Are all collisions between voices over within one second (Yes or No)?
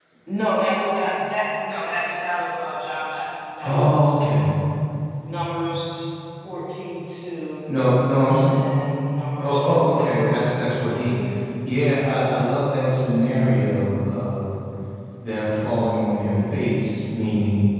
No